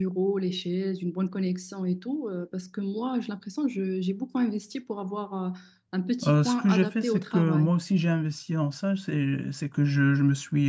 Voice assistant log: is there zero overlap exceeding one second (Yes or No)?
No